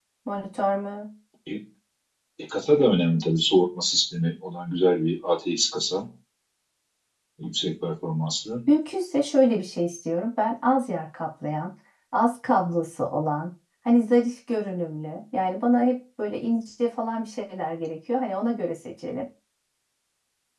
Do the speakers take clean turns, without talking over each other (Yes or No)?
Yes